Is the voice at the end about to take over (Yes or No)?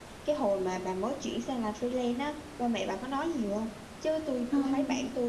No